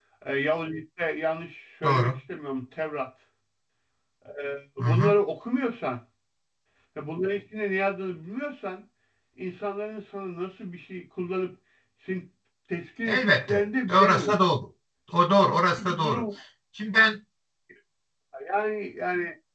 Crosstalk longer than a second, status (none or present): present